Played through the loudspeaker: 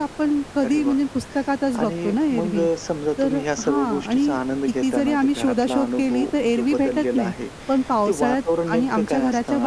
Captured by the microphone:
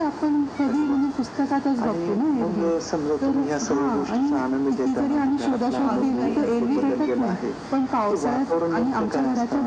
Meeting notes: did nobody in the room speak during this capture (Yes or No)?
No